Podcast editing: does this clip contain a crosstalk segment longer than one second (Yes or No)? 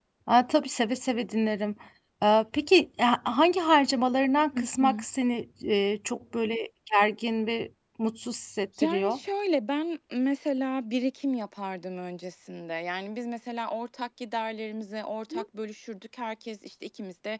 No